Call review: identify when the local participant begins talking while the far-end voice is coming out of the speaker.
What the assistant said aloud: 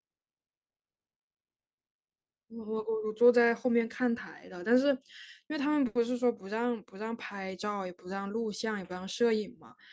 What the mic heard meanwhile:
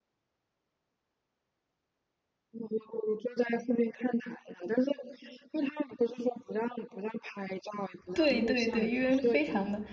8 s

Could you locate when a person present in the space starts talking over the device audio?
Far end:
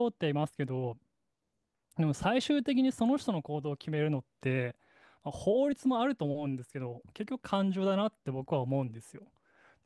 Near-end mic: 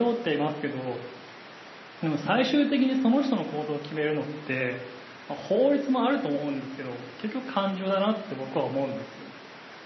none

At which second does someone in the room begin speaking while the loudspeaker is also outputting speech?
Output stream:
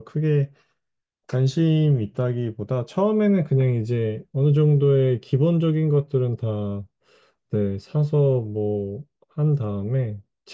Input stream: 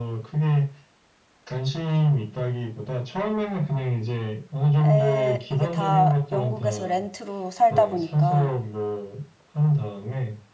5 s

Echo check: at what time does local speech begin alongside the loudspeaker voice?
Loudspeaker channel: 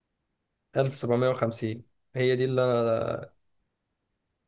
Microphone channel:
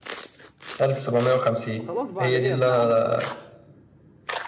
2 s

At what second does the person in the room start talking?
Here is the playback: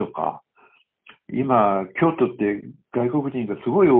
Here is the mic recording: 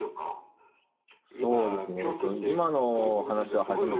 1 s

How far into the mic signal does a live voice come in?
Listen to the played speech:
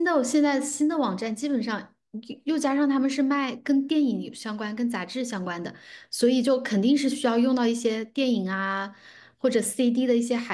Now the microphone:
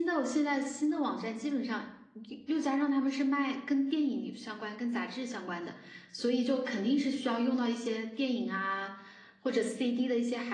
none

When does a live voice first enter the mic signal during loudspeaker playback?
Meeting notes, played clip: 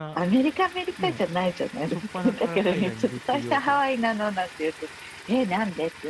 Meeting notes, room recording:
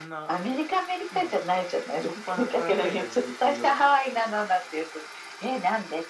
none

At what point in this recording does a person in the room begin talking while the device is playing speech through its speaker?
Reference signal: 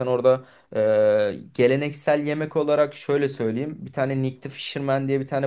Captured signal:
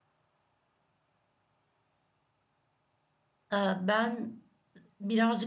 4 s

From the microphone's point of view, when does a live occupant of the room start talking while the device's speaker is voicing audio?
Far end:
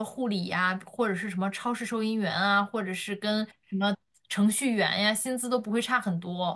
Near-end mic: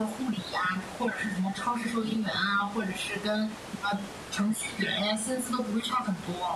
none

